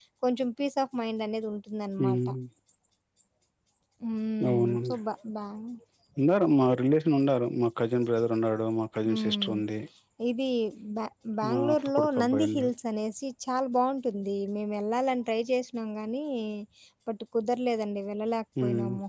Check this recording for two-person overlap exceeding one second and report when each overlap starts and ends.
11.5-12.7

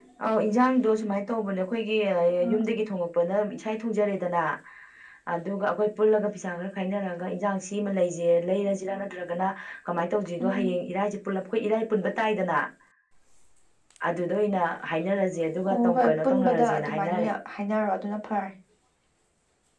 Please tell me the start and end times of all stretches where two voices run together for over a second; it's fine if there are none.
15.7-17.3

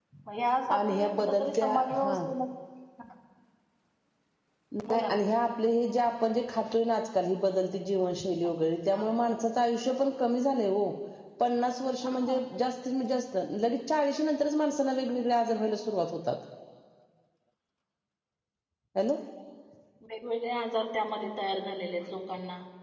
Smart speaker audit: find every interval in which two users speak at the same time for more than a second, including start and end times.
0.7-2.2

